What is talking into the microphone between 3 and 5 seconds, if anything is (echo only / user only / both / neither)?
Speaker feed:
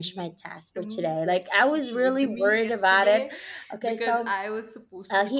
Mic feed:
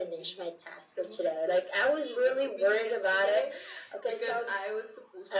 echo only